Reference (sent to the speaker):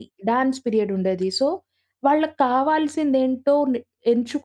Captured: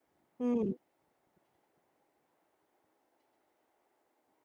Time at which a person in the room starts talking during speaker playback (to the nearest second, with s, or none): 0 s